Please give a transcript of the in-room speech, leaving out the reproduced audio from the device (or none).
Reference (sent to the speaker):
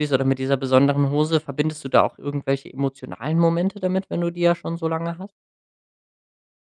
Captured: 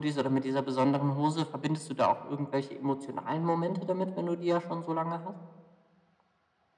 none